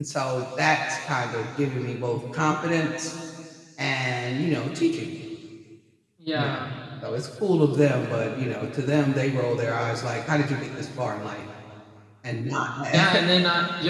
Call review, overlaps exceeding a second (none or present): none